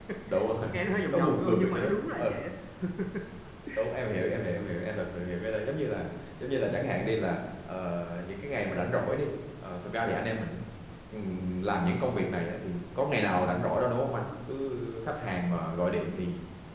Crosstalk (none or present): present